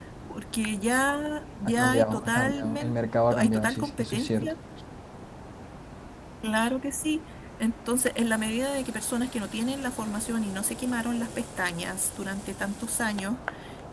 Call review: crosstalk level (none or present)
present